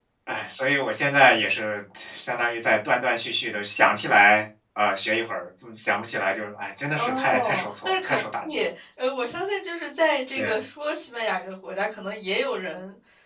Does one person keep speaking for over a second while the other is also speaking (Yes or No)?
Yes